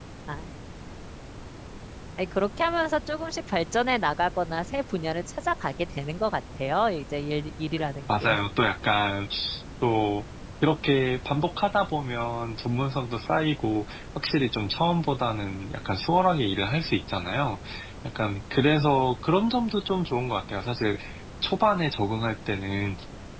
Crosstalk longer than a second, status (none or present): none